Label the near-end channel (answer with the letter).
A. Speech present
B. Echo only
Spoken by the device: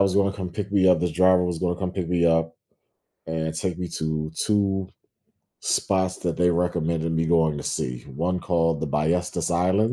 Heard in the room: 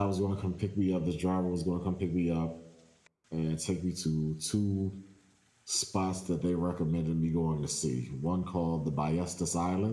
B